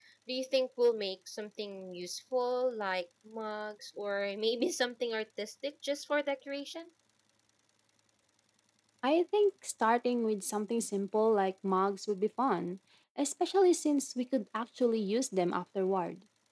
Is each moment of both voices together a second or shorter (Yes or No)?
Yes